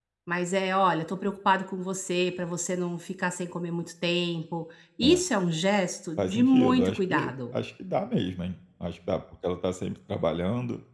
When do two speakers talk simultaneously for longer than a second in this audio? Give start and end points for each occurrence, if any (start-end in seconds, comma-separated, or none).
6.2-7.5